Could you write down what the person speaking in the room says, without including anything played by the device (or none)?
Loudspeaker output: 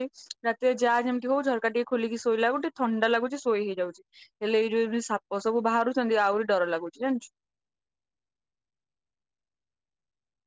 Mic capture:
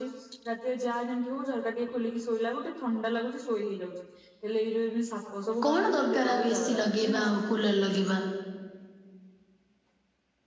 କଣ ଦରକାର ଆଉ ଏସିି ଲଗେ ଲଗେଇବା ଆଉ କୁଲର୍ ଲଗେଇବା।